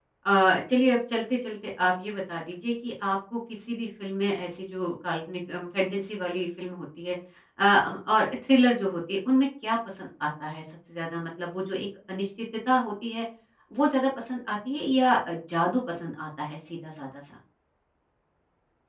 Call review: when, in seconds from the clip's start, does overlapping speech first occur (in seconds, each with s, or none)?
none